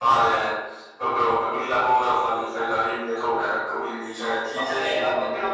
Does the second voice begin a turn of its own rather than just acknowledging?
Yes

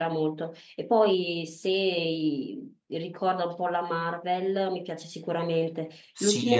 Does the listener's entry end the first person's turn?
Yes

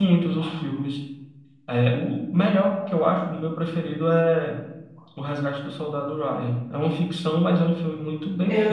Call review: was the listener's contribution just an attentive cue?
No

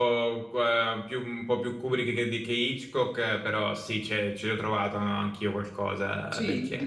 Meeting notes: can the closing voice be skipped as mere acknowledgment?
No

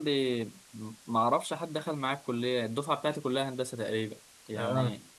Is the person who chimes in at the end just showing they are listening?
Yes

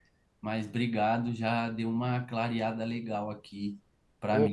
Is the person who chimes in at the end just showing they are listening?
No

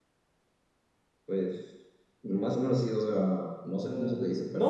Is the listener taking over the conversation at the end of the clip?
Yes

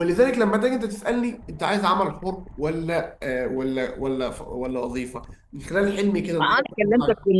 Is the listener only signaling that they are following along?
No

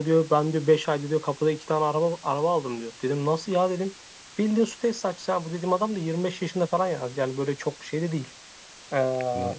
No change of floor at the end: Yes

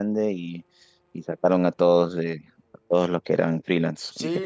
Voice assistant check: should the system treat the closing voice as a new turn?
Yes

